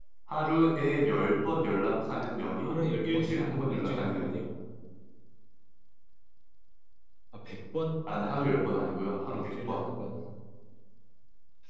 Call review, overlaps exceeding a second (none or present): present